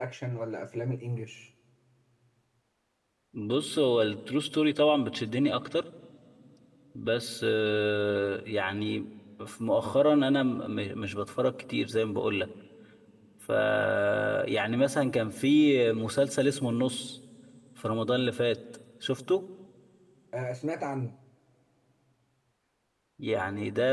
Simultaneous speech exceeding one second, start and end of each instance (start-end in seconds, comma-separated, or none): none